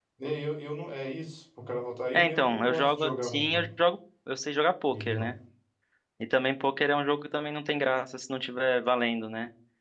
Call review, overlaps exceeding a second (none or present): present